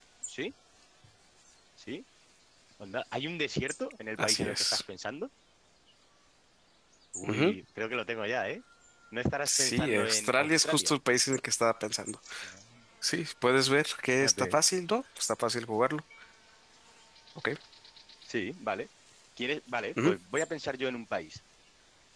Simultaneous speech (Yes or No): Yes